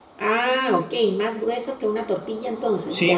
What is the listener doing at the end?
taking over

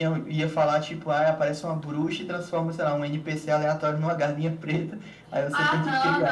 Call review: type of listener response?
taking over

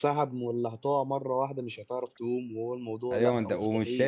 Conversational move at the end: taking over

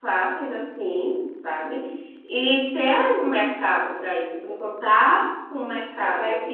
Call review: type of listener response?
taking over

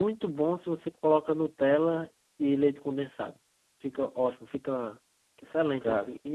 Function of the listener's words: listening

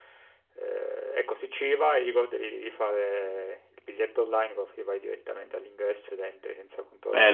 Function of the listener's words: taking over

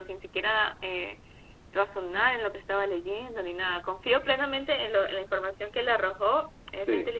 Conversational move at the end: listening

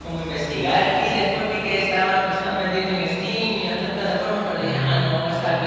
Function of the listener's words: taking over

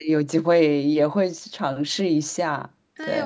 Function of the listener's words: taking over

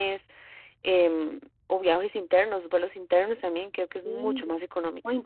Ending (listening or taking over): taking over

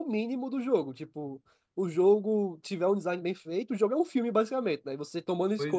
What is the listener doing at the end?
listening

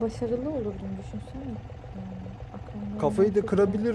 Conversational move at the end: taking over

